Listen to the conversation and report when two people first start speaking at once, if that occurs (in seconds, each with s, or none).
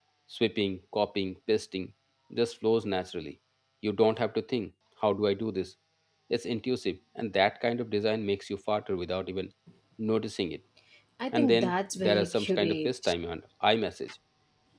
11.3 s